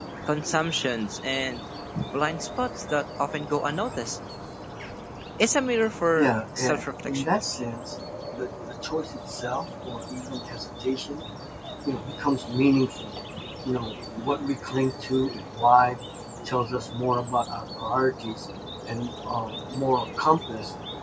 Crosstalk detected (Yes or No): Yes